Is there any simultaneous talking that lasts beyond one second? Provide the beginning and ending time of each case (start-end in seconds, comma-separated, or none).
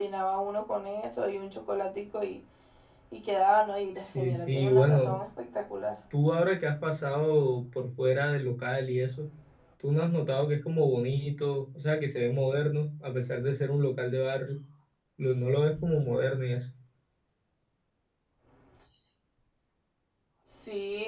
4.0-5.2